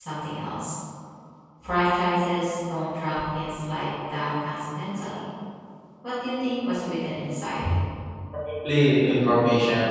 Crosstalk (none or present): none